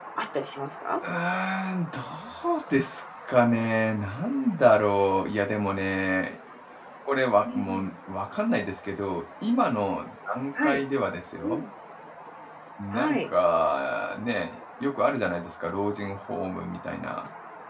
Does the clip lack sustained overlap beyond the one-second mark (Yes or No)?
Yes